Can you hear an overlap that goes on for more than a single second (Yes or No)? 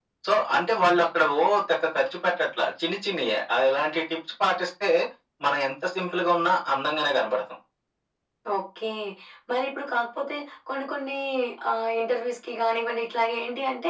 No